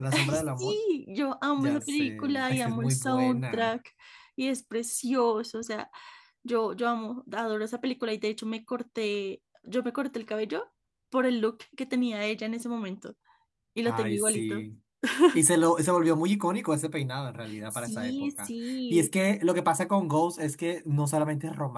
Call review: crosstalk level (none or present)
present